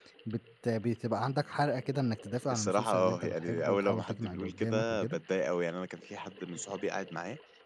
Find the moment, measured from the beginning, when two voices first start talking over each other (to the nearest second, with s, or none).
3 s